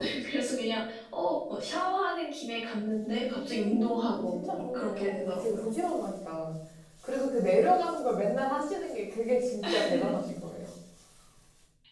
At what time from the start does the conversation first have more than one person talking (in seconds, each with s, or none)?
2.9 s